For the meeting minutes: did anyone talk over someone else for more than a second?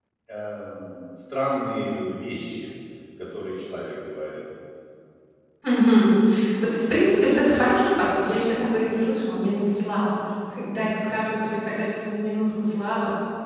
No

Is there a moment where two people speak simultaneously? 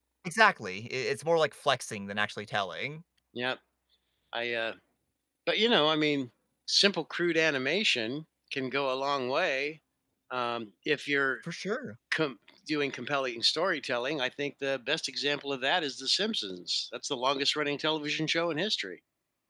No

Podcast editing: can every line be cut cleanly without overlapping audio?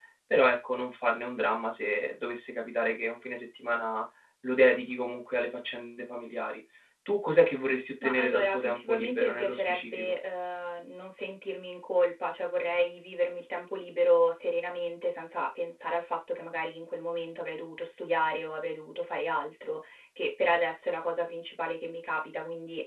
No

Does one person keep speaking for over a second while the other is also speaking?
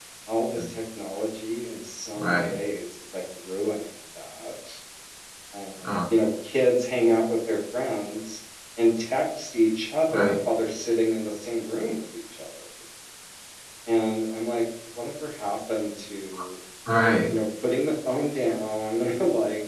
No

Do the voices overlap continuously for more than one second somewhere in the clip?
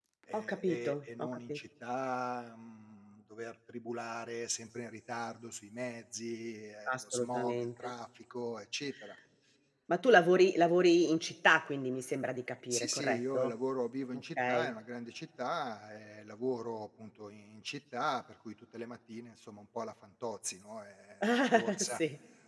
Yes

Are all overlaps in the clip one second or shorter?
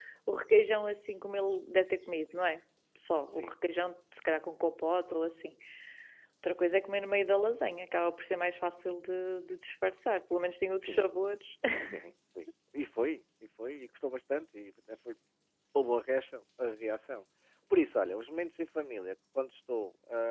Yes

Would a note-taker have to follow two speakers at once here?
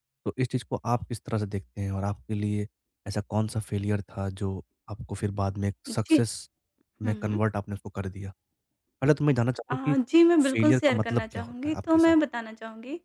Yes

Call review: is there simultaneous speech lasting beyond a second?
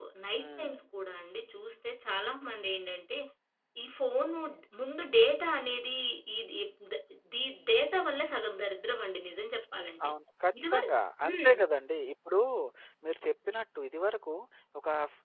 No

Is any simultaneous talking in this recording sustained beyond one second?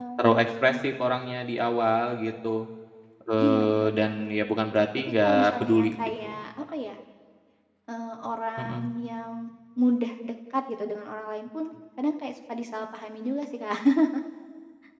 Yes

